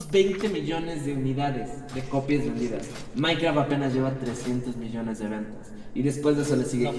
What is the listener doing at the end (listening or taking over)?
listening